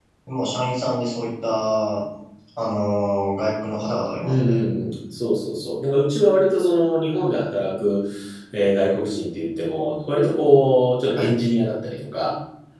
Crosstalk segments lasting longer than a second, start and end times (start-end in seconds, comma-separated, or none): none